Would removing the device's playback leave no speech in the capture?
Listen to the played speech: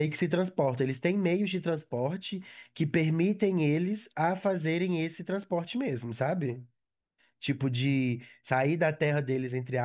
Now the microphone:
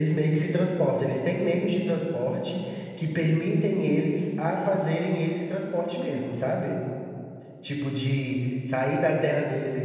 Yes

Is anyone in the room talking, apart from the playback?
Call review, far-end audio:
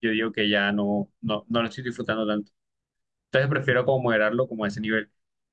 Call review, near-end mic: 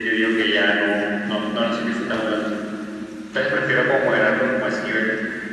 No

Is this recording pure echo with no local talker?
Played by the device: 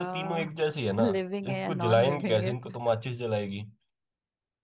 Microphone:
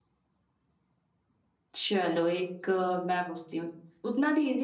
No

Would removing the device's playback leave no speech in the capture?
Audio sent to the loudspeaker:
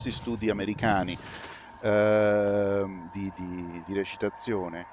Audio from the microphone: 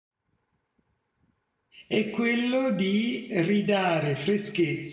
No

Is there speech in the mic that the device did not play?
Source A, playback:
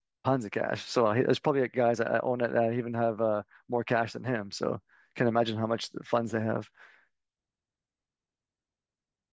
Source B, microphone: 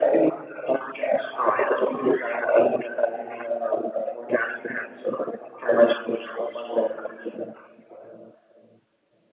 No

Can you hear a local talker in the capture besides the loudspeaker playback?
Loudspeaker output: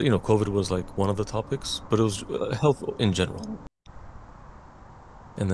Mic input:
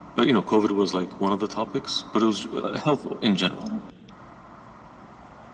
No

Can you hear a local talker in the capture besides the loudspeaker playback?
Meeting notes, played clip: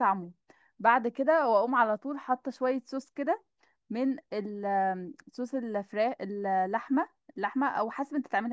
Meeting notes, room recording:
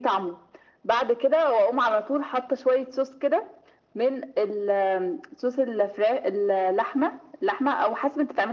No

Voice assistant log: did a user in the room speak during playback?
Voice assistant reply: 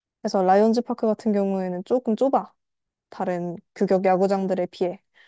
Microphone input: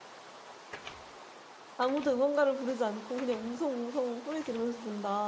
Yes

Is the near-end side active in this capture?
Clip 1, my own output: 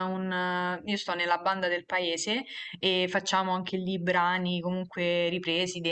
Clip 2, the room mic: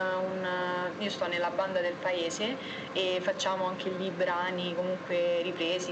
No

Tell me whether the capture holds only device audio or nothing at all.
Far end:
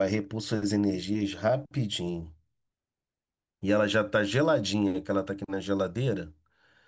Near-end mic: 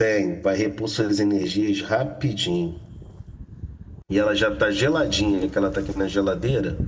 Yes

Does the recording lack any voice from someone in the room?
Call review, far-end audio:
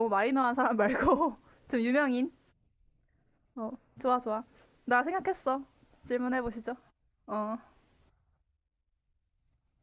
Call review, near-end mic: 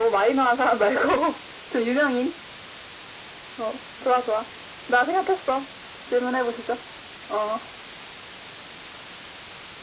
Yes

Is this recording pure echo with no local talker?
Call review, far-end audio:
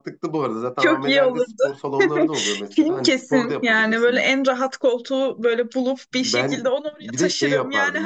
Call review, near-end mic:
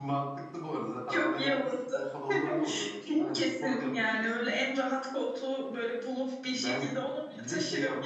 Yes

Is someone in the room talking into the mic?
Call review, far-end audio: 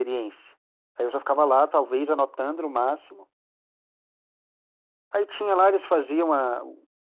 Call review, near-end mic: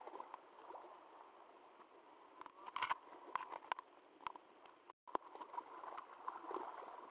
No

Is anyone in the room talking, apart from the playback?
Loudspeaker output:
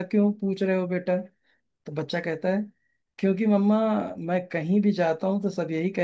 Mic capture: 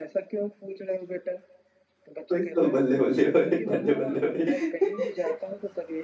Yes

